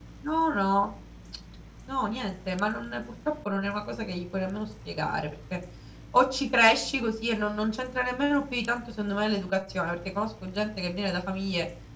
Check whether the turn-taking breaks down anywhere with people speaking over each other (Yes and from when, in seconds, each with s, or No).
No